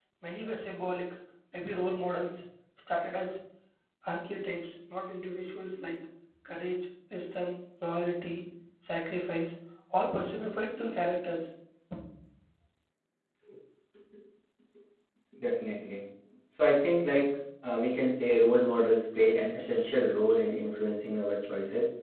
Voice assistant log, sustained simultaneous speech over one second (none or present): none